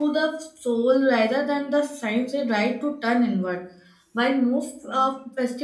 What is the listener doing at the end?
listening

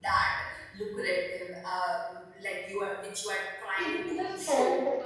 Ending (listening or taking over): taking over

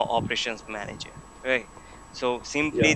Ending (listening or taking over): listening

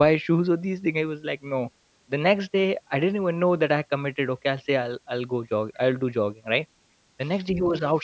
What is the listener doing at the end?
listening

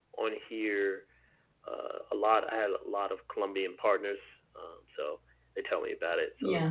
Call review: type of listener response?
taking over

